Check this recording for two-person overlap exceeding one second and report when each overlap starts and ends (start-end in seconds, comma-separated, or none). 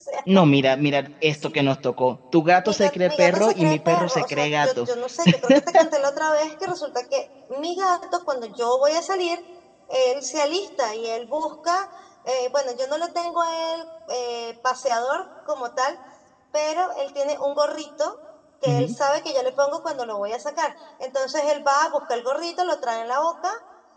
2.6-4.9